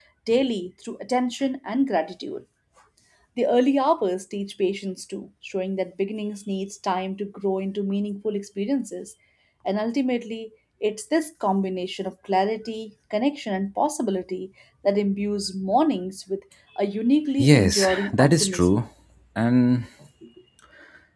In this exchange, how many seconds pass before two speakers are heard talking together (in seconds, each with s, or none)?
17.4 s